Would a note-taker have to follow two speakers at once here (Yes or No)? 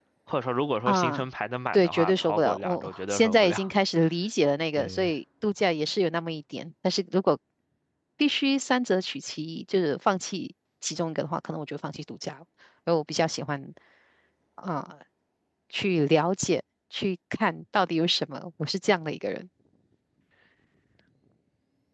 Yes